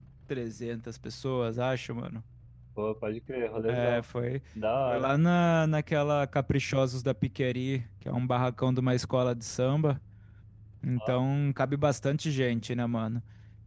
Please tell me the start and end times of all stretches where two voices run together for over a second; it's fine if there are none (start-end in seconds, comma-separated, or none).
none